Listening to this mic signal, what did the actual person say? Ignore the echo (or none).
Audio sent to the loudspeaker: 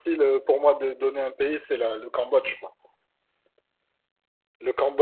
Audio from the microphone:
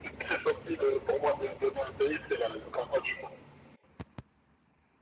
none